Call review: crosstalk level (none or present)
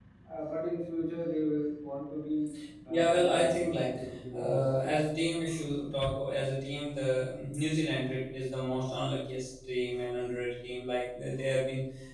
present